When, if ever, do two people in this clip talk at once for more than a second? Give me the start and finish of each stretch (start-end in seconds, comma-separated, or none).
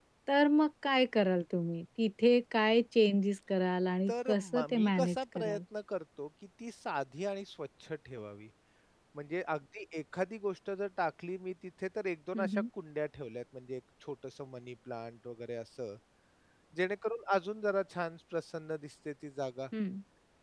4.1-5.6